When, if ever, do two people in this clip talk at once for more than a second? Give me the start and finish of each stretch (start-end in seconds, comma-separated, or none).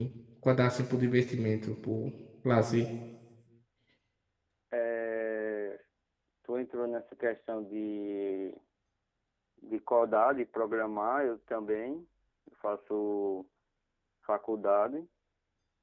none